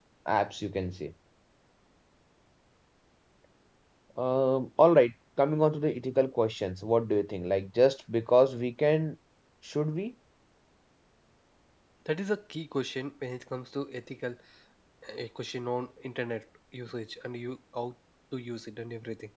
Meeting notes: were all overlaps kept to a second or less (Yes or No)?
Yes